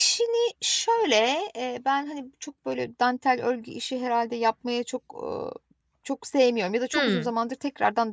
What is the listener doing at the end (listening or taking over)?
listening